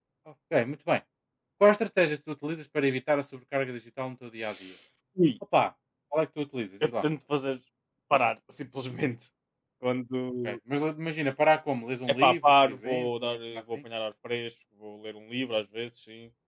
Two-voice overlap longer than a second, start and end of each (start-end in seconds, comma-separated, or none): 12.1-13.6